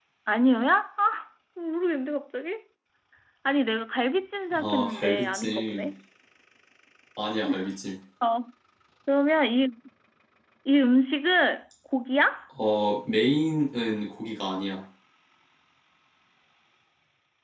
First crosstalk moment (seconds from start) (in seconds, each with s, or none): 4.5 s